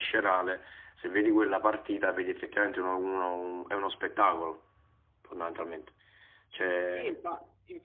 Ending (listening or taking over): taking over